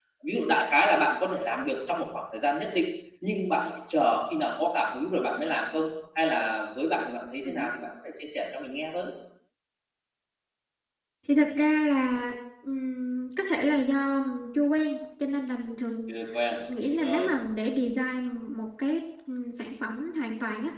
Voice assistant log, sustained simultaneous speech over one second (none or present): none